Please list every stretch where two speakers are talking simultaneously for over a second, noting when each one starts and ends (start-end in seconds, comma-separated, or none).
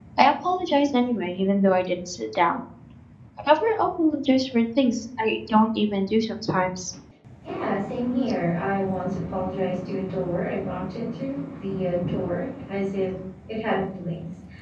none